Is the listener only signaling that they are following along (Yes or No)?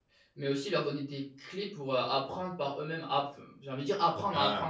No